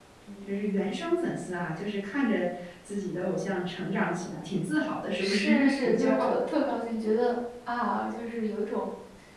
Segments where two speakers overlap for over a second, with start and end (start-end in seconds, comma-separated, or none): 5.2-6.4